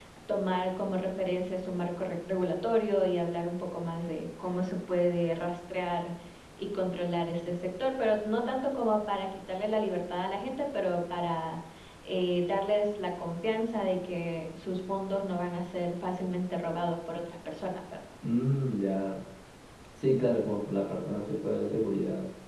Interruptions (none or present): none